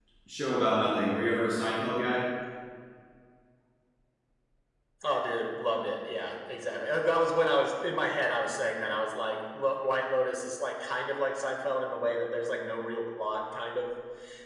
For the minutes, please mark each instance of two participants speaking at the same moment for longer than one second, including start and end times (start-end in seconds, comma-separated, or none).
none